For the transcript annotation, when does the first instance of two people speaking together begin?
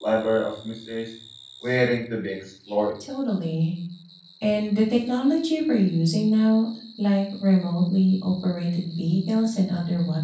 none

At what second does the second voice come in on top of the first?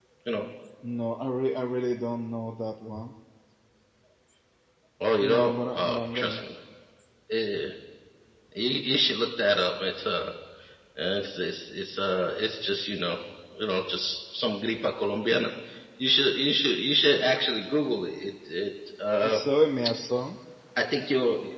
5.2 s

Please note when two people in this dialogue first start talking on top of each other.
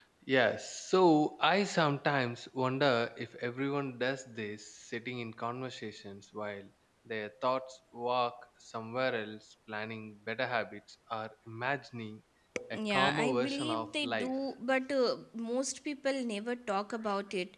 12.7 s

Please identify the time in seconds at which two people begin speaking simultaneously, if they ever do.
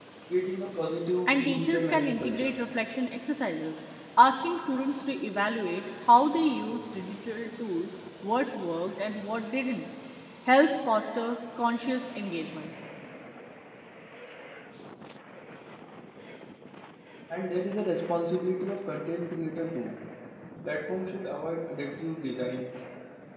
1.3 s

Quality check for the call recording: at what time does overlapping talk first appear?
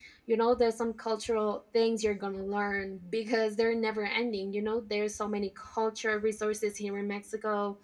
none

